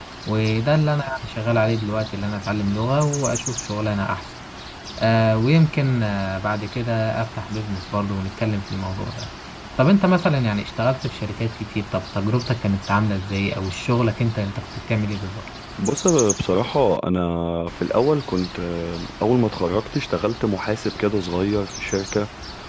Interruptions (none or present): none